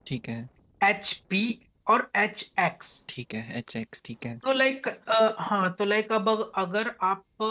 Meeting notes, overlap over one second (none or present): none